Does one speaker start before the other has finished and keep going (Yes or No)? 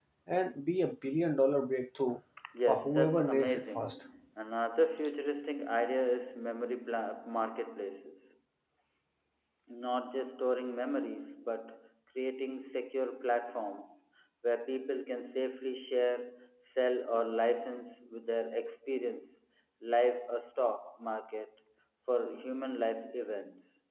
Yes